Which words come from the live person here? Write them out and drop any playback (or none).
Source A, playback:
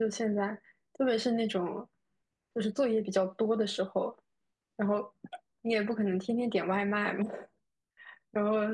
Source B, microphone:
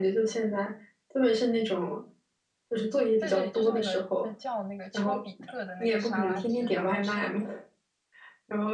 对对，就是那个呃叫那个丘比特的那个沙拉汁，然后是